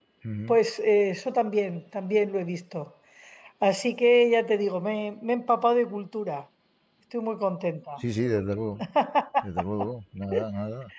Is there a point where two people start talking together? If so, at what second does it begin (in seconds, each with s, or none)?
none